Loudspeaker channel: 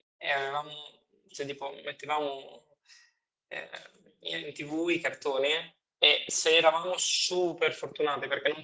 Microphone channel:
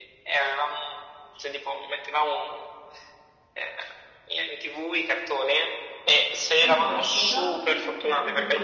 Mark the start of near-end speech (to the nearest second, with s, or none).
7 s